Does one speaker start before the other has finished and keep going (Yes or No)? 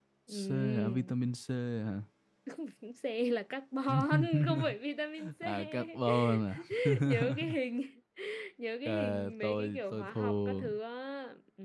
Yes